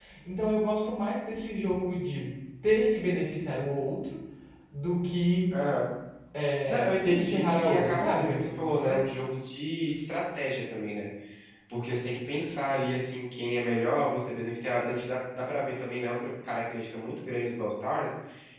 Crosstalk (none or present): present